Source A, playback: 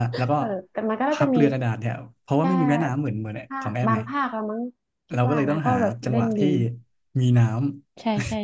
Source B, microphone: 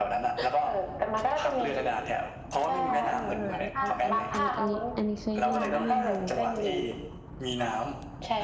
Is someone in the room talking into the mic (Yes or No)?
Yes